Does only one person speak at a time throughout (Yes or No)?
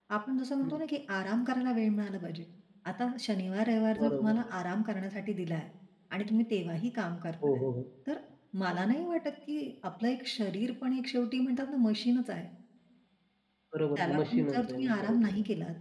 No